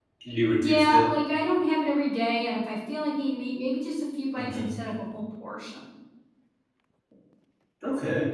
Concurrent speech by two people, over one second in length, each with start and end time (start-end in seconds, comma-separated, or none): none